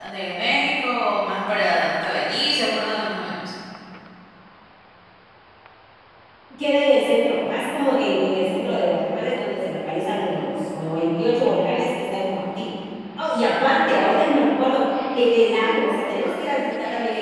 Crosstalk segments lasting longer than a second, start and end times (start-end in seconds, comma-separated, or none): none